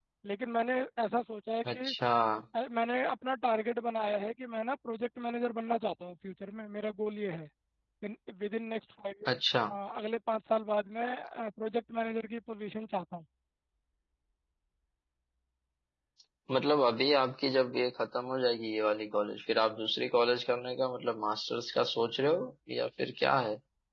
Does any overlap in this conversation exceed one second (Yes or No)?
No